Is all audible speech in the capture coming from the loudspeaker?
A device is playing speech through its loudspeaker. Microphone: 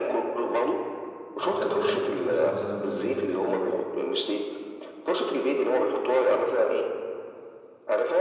No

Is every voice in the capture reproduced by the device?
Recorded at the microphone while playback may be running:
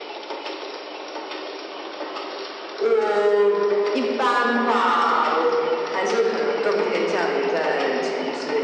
Yes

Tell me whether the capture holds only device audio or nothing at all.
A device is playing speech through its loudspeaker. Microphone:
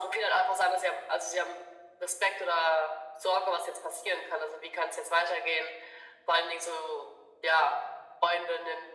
Yes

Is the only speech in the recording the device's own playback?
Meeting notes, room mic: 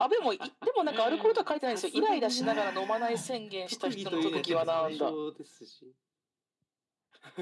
No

